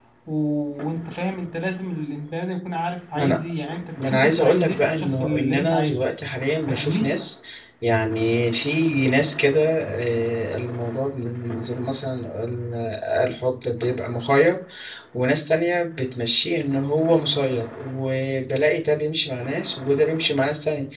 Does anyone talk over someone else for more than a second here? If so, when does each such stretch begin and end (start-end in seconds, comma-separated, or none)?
4.0-6.0